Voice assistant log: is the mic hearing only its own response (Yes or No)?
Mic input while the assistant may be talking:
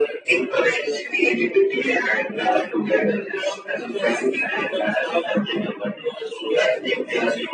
Yes